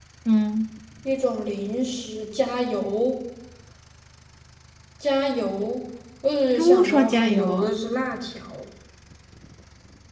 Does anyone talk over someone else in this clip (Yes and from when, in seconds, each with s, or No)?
Yes, from 6.5 s